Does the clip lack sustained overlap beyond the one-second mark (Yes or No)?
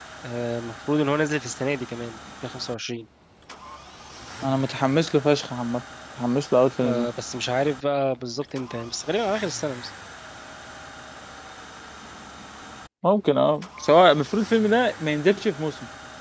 Yes